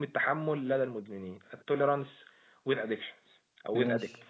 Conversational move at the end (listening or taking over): listening